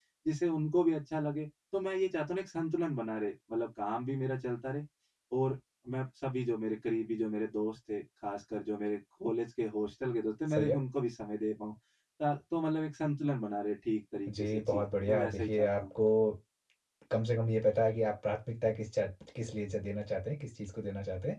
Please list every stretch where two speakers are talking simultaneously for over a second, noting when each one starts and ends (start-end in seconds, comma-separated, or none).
14.3-15.9